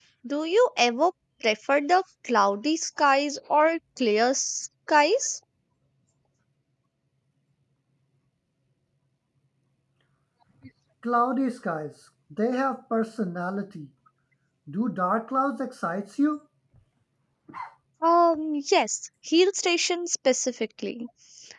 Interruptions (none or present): none